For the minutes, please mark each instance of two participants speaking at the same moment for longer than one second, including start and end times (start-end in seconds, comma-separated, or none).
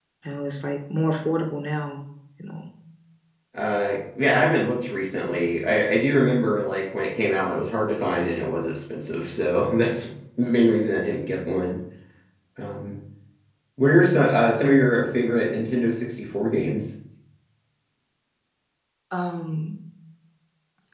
none